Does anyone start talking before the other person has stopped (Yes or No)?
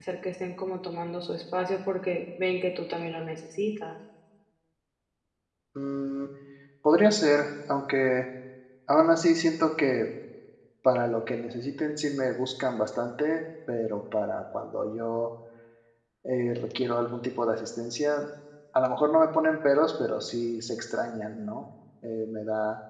No